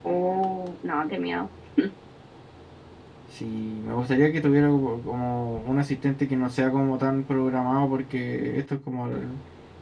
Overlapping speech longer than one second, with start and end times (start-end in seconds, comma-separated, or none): none